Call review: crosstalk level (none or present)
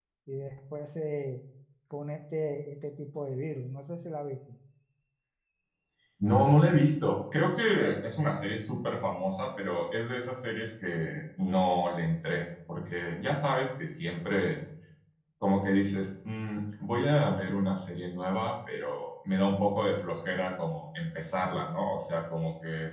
none